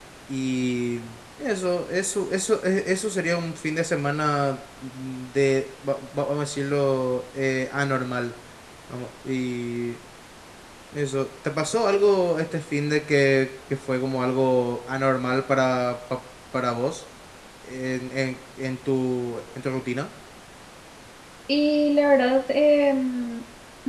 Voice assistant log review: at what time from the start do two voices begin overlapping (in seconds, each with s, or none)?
none